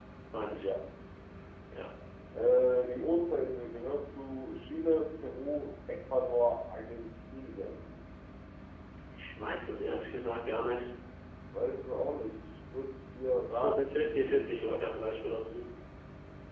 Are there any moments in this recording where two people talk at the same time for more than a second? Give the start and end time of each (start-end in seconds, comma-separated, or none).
13.5-14.8